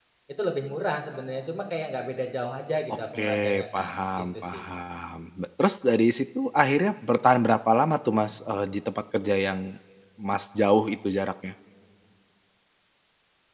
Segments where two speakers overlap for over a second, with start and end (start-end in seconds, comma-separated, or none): 2.9-4.6